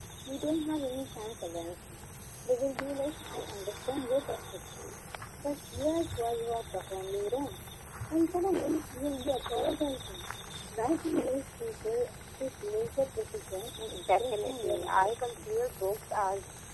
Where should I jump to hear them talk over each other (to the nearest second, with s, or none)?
14 s